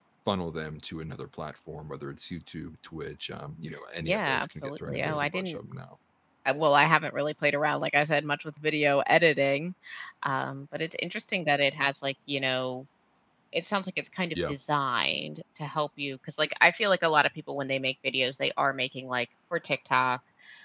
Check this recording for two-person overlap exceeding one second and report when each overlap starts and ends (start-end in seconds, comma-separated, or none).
4.0-5.6